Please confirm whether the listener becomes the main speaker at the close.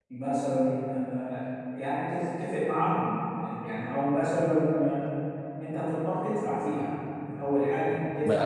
Yes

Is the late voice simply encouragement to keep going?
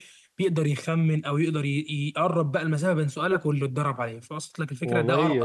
No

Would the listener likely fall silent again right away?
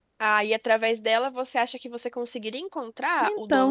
No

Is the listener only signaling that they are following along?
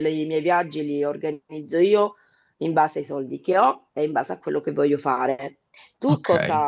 Yes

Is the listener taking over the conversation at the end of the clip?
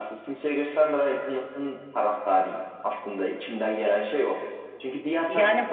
No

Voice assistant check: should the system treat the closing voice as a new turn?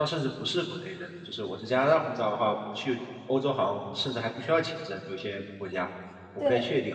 No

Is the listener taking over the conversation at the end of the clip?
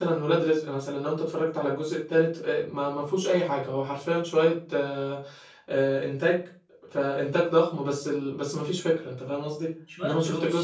No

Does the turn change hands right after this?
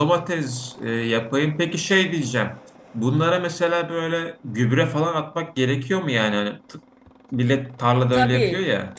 Yes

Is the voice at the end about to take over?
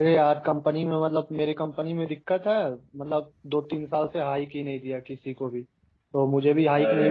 No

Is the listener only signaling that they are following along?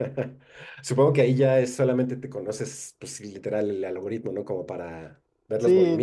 No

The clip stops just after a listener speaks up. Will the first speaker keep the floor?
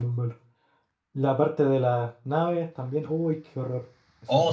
No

